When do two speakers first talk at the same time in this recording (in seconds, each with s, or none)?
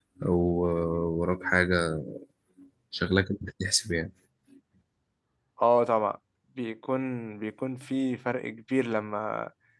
none